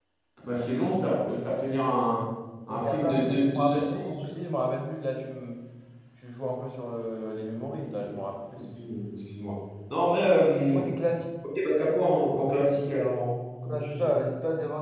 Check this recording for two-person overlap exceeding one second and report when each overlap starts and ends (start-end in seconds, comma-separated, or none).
2.7-4.2